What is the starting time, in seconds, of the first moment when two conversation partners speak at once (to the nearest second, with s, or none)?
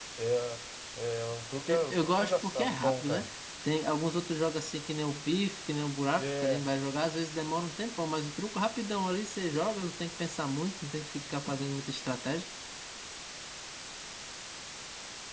2 s